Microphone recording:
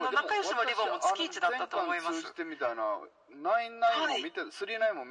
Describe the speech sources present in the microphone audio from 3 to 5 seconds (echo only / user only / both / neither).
echo only